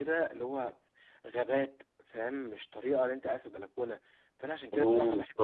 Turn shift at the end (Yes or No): No